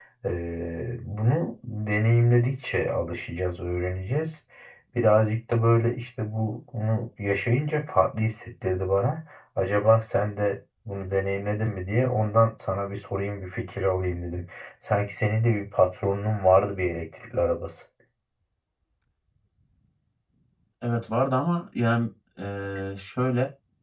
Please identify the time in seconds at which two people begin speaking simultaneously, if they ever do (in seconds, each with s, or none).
none